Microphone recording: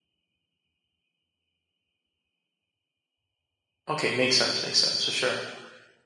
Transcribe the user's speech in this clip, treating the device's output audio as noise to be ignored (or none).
okay makes sense makes sense for sure